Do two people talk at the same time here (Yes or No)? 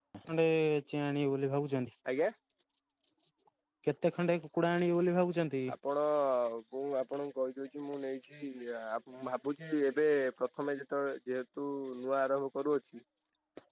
No